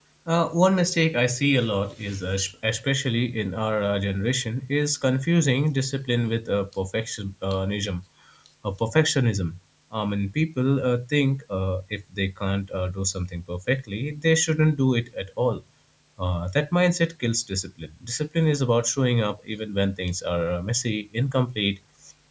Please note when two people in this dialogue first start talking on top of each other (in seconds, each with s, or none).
none